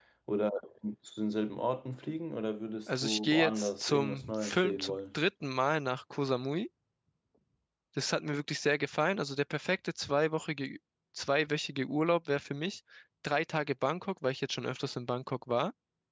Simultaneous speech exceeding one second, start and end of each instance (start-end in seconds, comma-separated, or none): 2.9-5.0